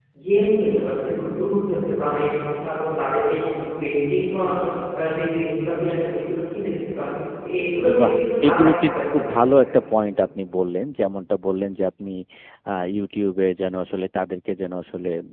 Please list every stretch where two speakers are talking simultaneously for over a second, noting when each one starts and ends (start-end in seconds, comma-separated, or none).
8.0-9.6